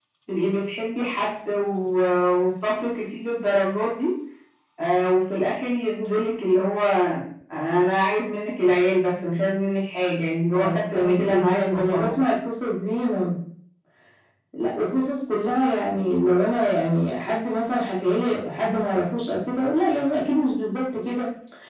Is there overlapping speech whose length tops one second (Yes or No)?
Yes